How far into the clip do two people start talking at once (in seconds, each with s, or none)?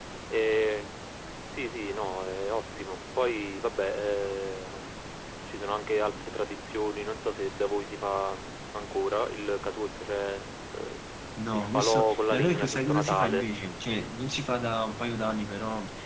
11.5 s